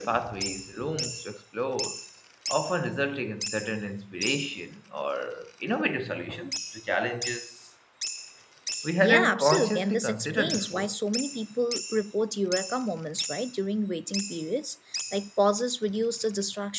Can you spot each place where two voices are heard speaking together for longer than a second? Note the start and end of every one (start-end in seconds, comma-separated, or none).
9.0-10.9